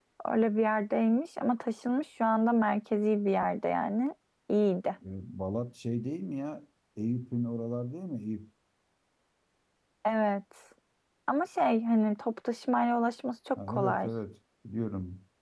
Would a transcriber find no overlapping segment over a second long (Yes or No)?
Yes